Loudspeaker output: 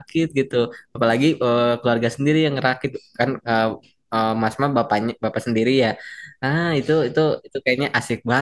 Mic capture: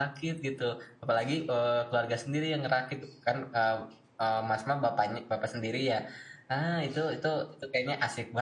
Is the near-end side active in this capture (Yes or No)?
No